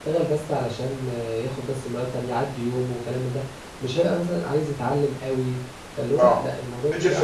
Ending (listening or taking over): taking over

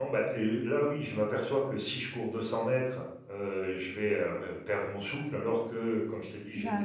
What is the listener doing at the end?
listening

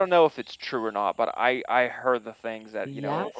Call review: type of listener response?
listening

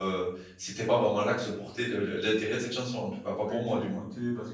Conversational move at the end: taking over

